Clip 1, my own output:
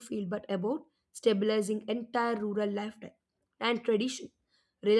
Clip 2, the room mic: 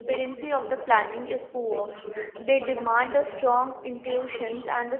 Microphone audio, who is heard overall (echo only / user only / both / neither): both